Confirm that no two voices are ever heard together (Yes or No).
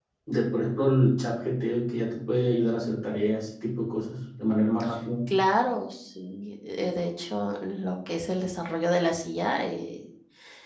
Yes